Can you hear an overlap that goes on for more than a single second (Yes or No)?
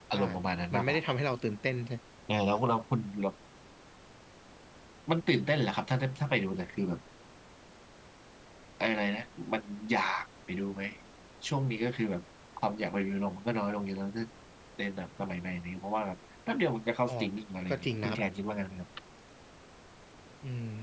No